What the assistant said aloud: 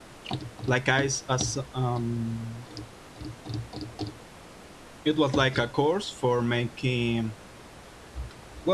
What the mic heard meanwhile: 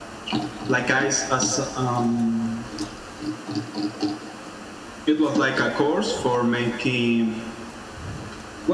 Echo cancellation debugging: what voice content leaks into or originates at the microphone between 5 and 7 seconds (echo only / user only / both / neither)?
echo only